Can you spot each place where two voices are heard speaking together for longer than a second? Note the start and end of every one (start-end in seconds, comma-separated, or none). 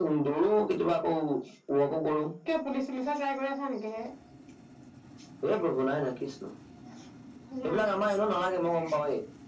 none